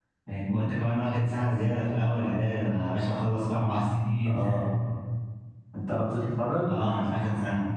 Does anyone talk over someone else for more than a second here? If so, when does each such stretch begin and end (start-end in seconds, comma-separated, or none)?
none